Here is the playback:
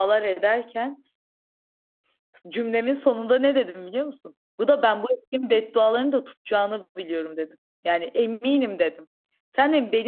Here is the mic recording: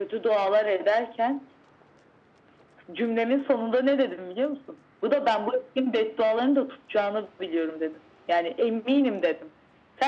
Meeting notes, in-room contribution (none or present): none